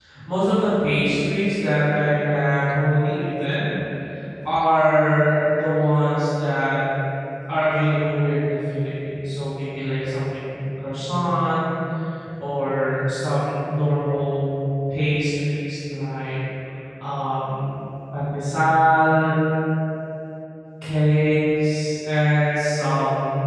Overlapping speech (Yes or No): No